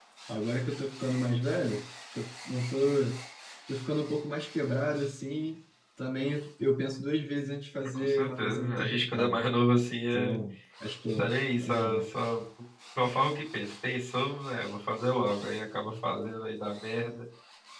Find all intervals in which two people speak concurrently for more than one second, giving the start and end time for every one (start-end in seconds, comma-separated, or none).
7.8-9.4